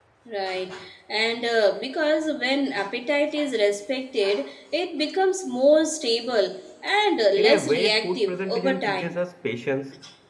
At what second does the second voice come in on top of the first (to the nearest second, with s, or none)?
7 s